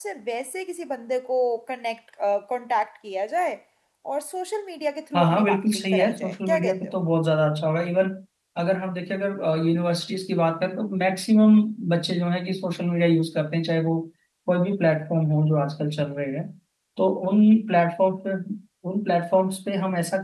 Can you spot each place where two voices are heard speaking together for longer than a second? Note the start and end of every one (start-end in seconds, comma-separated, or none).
5.2-7.0